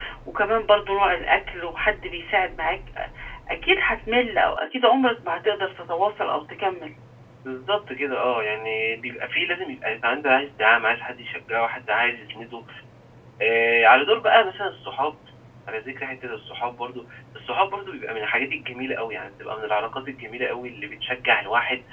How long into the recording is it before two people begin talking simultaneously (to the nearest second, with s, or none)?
none